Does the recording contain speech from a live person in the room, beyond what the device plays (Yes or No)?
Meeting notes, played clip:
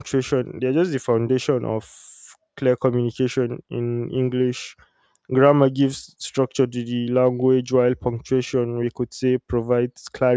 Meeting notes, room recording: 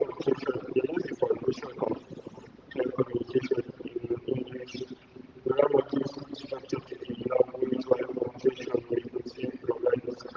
No